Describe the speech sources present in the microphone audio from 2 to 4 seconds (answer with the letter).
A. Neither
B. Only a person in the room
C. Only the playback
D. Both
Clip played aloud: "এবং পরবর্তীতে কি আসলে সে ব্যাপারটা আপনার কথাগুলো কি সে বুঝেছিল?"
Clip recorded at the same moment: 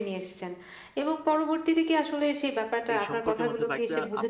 D